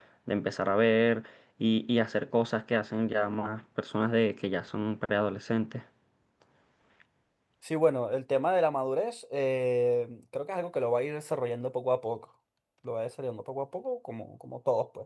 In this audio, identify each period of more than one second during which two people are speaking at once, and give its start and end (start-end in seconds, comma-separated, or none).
none